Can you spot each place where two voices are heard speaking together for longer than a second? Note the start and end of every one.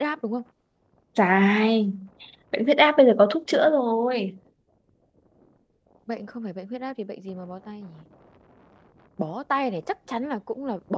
none

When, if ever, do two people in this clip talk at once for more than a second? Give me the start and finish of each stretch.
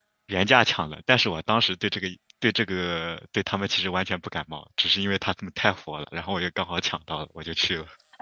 none

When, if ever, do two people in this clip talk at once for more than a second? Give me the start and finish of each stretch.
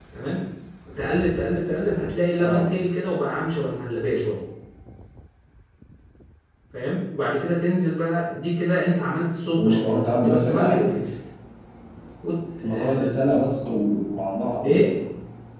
9.5-10.9

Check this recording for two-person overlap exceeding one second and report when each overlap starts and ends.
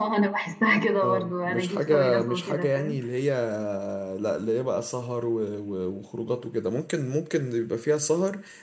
1.0-3.0

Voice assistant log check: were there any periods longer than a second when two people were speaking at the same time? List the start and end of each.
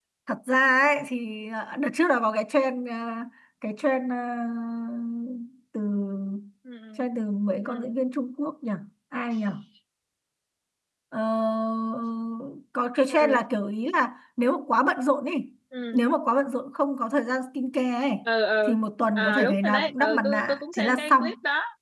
19.2-21.2

